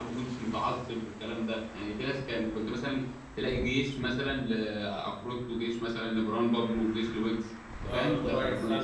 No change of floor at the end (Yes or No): No